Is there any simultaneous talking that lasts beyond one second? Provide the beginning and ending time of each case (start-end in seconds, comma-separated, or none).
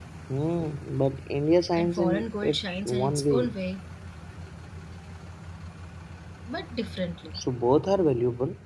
1.8-3.5